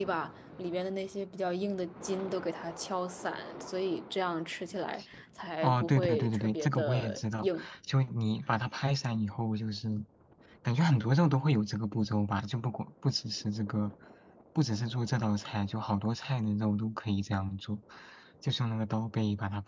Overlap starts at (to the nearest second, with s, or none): 6 s